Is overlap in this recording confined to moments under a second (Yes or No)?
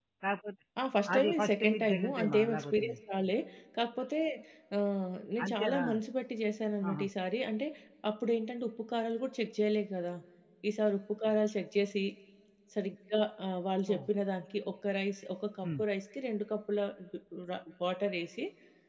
No